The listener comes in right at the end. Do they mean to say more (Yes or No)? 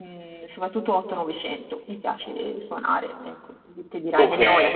No